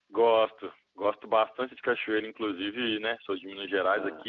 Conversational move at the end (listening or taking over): listening